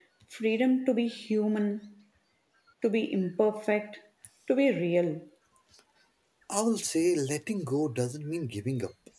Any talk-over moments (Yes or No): No